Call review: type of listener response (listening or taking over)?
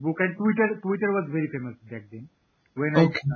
listening